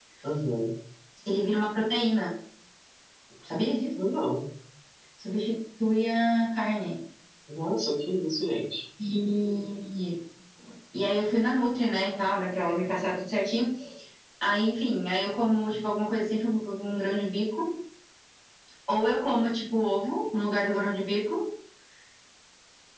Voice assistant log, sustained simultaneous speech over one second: none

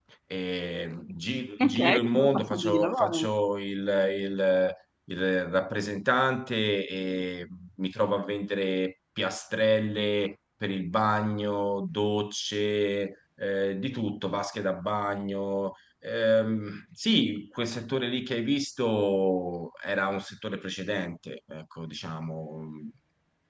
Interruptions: present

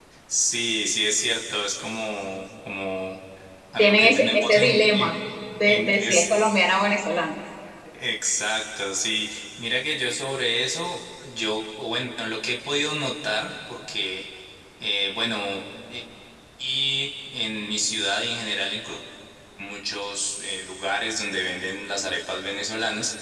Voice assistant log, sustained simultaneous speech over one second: present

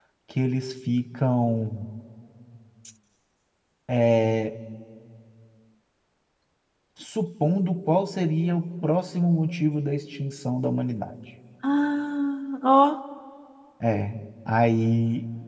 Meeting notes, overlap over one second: none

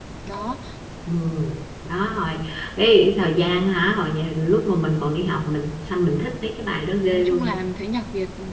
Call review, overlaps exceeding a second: none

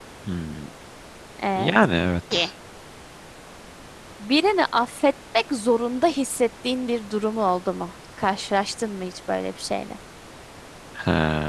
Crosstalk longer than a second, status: none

